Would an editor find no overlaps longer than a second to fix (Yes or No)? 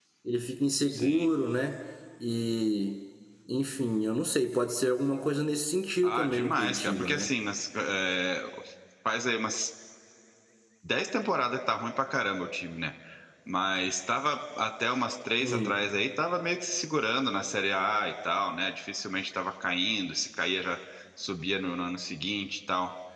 No